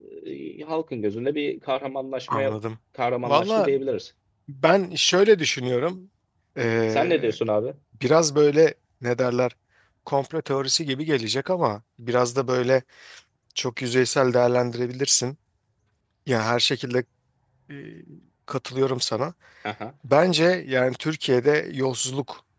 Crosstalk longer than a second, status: none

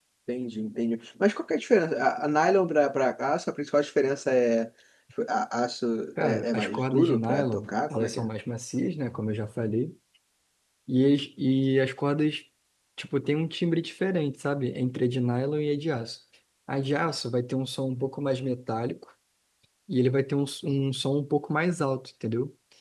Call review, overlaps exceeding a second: present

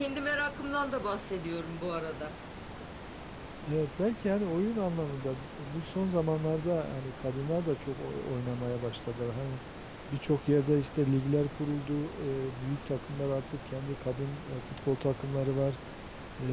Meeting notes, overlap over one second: none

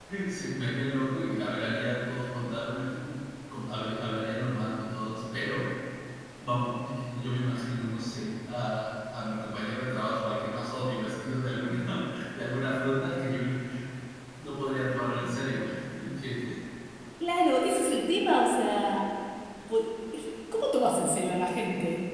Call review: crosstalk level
none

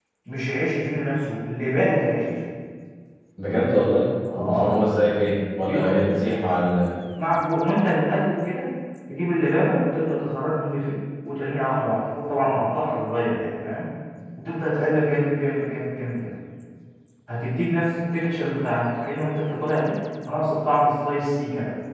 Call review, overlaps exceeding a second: none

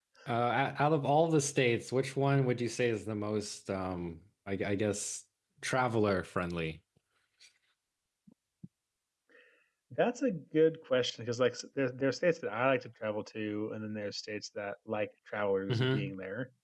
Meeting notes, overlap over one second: none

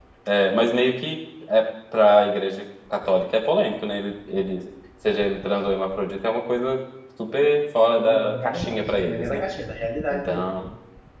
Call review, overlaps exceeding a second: present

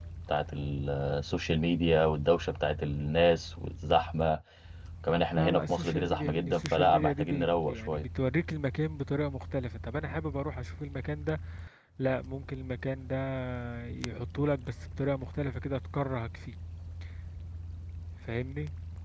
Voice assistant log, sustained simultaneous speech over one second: present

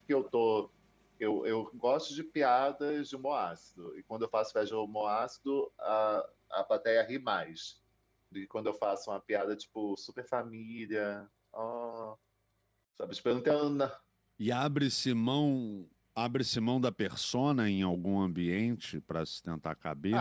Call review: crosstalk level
none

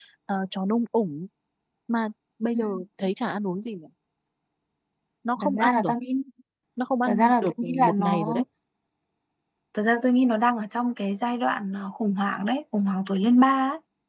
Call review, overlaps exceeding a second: present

